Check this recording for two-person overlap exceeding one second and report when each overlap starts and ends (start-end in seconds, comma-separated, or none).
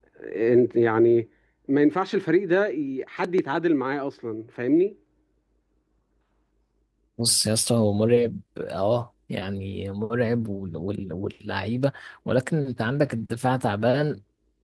none